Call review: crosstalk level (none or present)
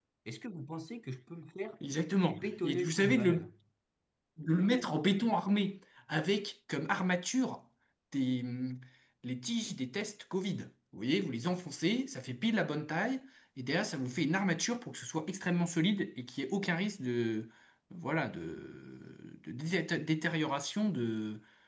present